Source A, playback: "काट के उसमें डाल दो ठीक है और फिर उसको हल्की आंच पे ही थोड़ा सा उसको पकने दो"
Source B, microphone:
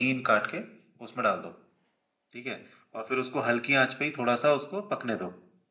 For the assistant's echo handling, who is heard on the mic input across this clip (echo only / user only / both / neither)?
echo only